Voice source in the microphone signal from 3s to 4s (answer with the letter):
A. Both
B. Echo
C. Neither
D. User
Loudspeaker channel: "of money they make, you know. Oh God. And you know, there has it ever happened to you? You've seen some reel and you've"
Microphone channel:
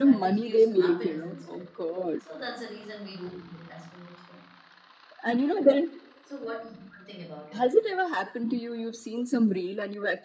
D